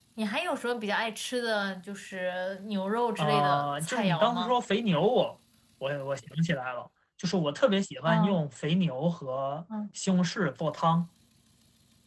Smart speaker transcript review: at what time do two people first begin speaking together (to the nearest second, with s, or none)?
3 s